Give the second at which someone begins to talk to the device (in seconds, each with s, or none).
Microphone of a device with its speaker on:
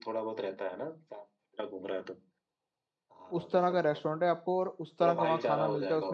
3.3 s